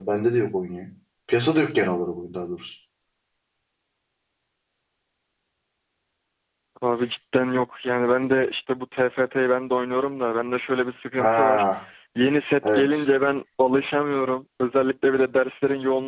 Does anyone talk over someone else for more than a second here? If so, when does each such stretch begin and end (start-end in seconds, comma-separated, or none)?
none